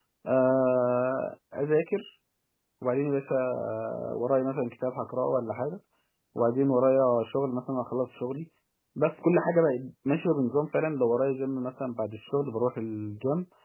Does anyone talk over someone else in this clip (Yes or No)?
No